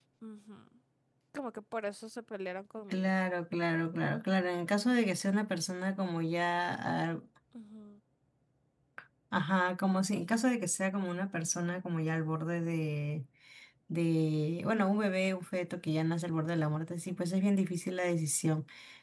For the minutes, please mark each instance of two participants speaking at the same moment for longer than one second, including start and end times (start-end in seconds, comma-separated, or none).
none